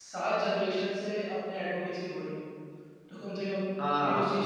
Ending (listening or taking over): taking over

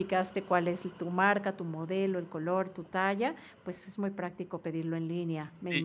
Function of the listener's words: taking over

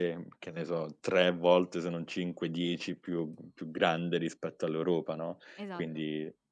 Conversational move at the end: listening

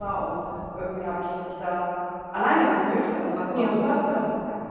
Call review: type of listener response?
listening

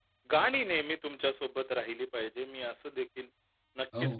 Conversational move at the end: listening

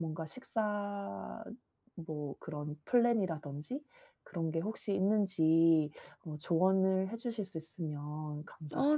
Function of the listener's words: taking over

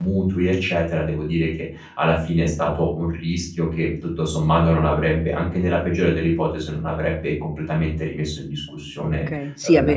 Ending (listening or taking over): taking over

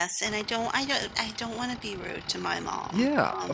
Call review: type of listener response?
taking over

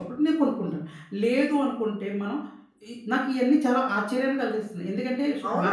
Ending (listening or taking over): taking over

